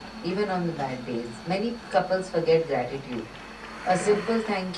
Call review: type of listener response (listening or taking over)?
listening